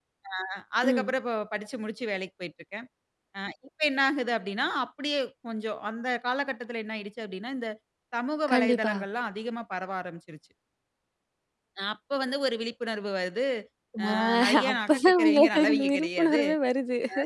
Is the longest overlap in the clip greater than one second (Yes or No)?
Yes